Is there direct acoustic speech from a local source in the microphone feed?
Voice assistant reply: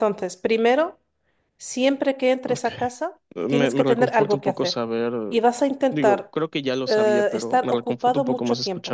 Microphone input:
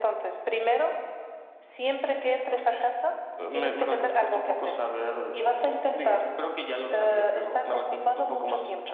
No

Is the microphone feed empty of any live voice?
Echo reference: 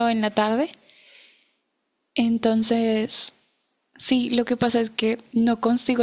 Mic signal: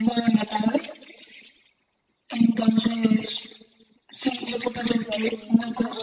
No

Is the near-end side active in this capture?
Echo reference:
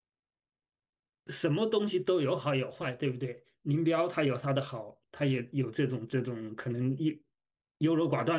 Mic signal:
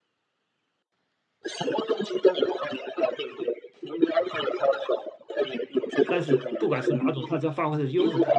Yes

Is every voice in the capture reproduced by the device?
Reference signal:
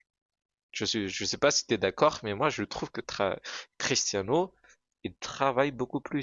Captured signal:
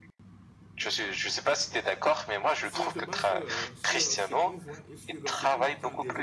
No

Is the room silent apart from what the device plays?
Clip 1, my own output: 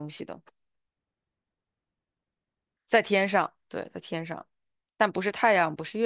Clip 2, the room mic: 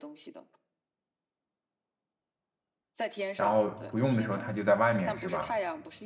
No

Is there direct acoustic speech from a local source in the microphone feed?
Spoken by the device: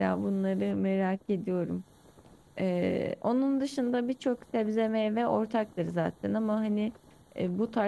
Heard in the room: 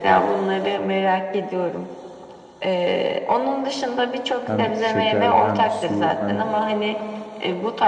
Yes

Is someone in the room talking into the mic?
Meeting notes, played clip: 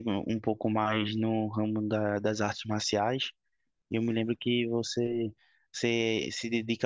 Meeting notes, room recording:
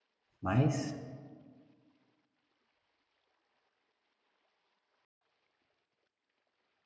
Yes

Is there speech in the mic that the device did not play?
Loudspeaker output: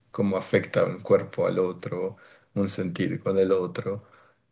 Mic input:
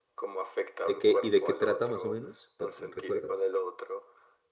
Yes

